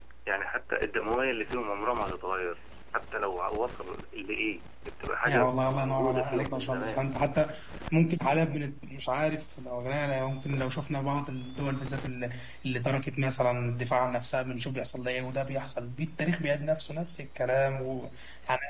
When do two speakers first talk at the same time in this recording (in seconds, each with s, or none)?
5.2 s